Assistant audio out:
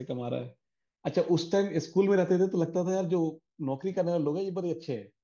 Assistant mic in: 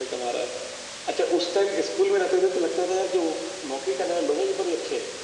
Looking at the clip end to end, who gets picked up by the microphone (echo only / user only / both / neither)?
echo only